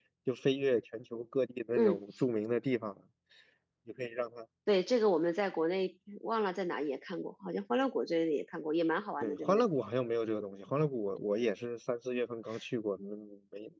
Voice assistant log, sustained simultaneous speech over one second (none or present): none